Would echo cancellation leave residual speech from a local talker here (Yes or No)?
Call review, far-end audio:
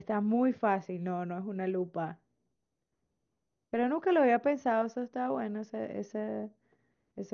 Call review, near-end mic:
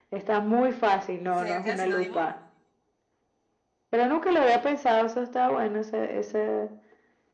Yes